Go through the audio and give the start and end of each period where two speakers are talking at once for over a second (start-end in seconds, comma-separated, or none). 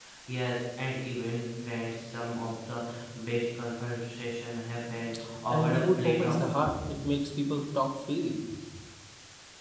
5.5-6.7